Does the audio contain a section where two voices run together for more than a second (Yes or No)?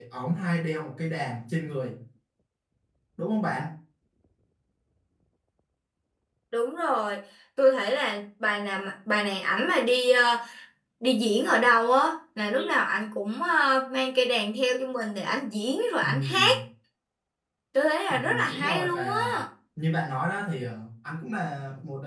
Yes